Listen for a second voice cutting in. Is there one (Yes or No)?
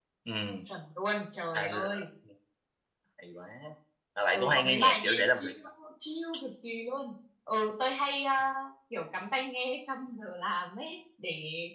Yes